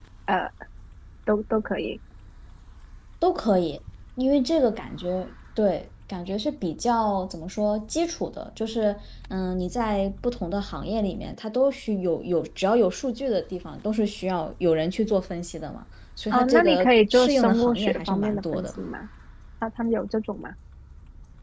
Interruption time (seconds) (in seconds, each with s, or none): 16.3 s